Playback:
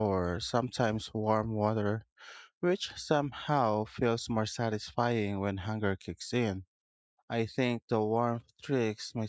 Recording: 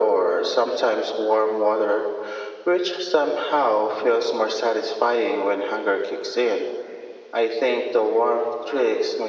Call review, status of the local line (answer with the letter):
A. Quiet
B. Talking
A